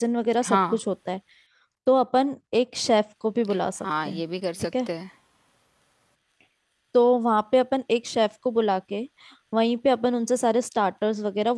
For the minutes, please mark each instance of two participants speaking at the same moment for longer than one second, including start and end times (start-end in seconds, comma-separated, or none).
none